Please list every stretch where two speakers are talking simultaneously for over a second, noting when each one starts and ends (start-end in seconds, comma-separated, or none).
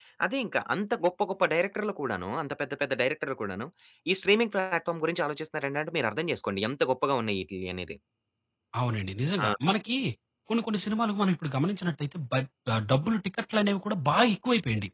none